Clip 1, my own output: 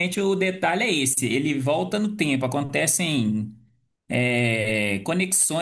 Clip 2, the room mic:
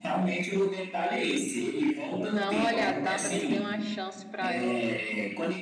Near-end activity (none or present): present